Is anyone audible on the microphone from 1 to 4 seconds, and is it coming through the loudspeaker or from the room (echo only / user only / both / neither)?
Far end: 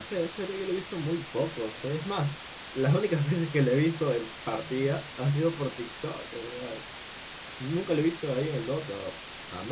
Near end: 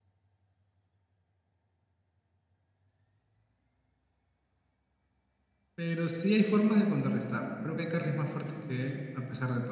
neither